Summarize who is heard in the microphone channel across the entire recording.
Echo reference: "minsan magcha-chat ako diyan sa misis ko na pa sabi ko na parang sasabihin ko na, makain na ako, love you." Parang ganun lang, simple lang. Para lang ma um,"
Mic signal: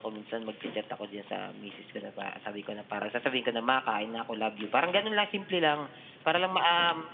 echo only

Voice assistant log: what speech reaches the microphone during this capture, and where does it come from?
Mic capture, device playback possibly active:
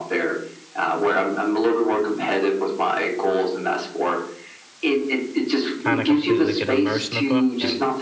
both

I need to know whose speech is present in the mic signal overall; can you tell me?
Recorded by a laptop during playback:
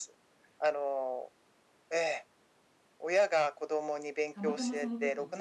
both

